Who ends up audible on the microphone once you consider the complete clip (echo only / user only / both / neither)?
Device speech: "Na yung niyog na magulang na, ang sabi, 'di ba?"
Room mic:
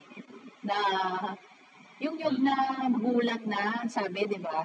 both